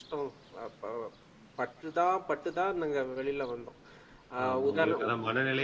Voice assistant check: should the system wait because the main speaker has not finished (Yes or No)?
No